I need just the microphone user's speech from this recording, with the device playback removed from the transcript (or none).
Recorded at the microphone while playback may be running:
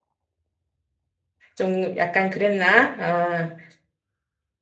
좀 약간 그랬나? 아,